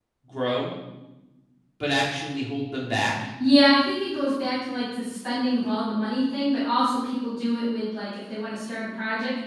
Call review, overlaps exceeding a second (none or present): none